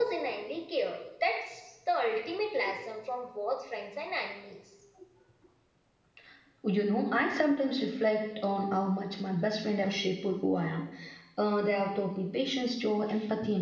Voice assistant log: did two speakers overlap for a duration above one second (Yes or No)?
No